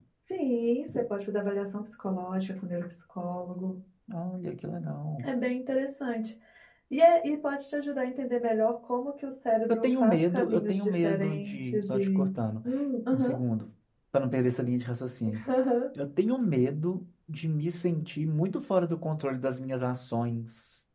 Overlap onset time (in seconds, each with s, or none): 9.7 s